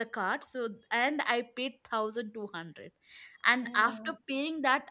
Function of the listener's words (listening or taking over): listening